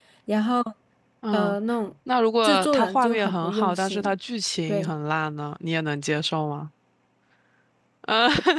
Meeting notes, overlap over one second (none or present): present